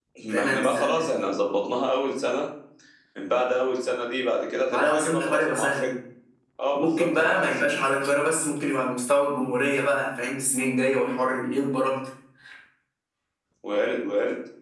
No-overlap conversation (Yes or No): No